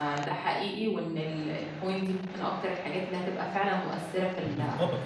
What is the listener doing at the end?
taking over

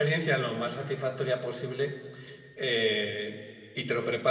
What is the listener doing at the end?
listening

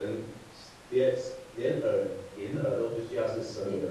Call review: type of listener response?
listening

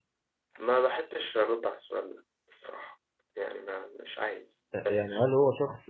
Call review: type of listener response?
taking over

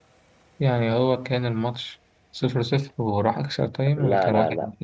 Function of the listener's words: taking over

